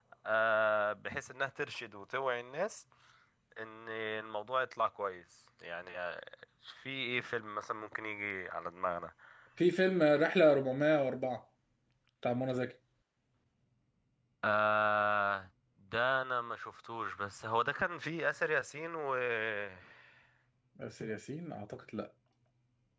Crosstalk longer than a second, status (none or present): none